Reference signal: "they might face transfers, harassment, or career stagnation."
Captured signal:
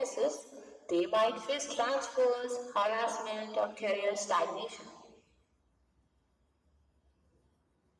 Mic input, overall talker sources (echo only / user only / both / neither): echo only